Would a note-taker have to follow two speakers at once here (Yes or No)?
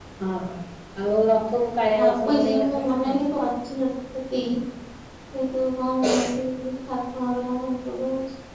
Yes